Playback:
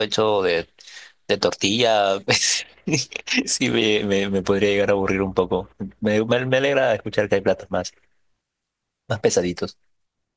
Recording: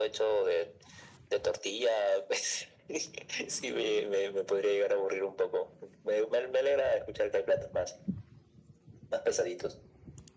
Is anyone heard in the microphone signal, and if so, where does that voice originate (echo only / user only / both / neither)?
echo only